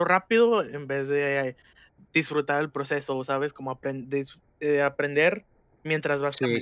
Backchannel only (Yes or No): No